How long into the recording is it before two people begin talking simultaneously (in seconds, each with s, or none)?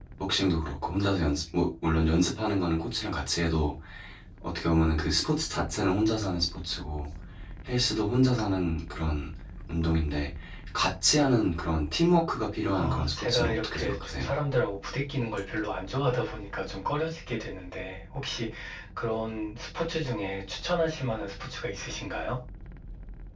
12.7 s